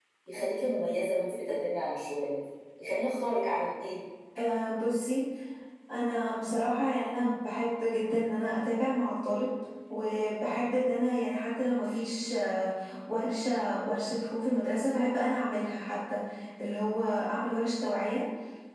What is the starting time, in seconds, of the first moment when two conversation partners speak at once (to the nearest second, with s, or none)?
none